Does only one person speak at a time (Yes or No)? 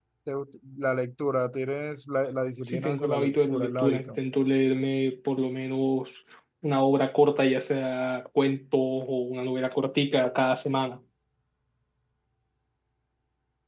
No